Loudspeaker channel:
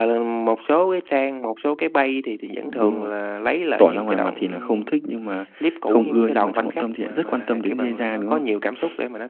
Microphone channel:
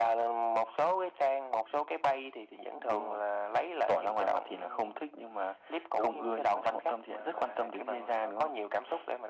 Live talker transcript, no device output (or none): none